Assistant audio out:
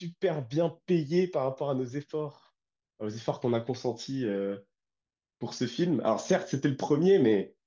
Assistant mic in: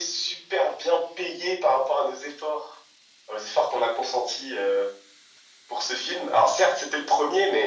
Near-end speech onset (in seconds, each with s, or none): none